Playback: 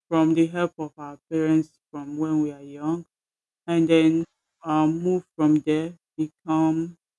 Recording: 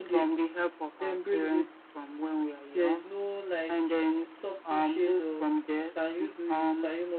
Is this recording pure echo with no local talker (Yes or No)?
No